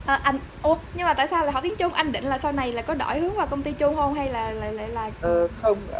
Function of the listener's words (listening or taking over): taking over